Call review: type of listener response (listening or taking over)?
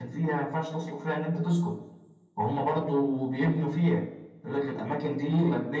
listening